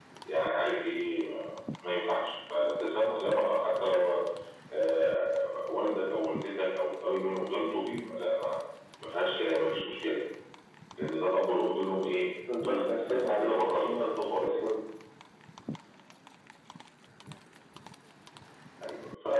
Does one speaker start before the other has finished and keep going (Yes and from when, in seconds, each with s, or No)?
Yes, from 12.5 s